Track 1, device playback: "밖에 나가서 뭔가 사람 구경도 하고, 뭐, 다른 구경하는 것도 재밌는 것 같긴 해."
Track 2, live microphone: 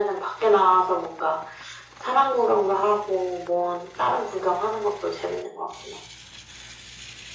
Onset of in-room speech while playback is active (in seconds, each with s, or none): none